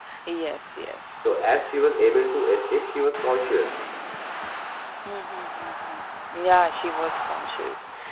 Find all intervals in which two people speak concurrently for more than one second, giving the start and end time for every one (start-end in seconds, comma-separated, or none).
none